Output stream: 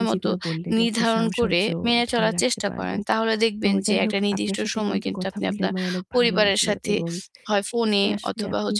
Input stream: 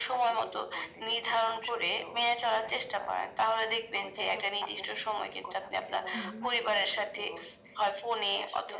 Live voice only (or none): হুম, হুম।